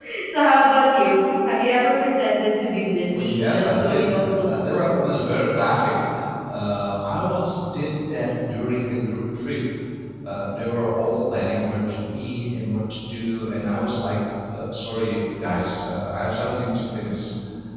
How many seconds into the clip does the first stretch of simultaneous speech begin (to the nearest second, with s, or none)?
3 s